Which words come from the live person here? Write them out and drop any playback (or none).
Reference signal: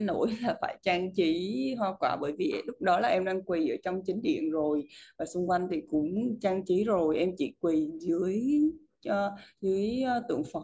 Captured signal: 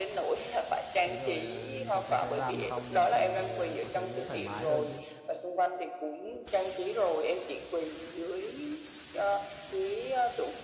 thế rồi à, từ từ từ làm xong thì có thấy thoải mái hơn chứ